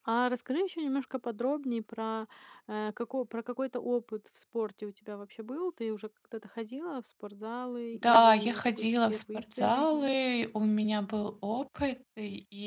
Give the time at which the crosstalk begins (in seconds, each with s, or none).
7.9 s